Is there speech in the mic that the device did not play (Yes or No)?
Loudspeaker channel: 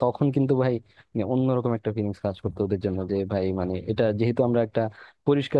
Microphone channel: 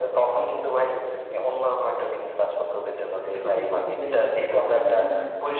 Yes